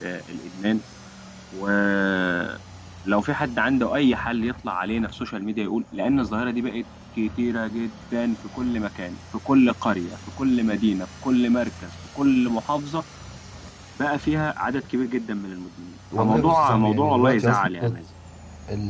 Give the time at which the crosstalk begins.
16.1 s

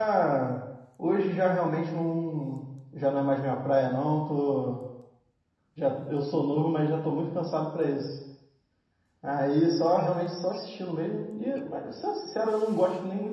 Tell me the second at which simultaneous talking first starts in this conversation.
none

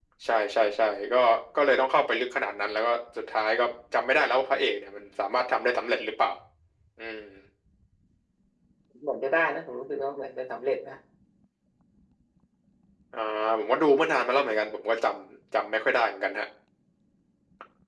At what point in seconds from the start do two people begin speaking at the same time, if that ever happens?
none

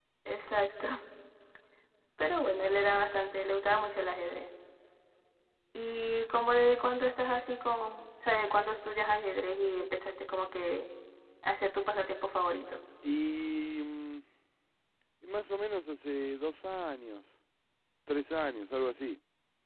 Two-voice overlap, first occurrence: none

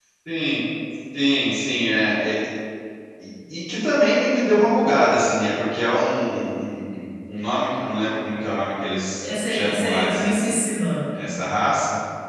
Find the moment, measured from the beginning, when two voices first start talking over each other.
9.2 s

